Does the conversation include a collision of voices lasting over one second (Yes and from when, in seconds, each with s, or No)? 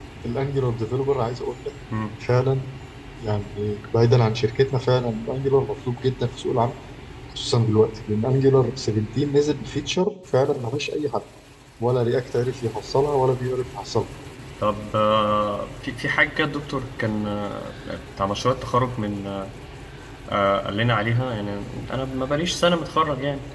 No